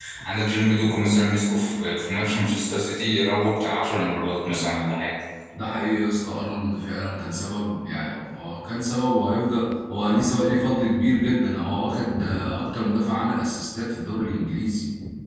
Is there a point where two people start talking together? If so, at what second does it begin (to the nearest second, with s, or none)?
none